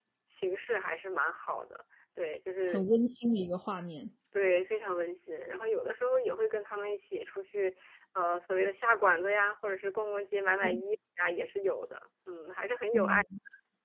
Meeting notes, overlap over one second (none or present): none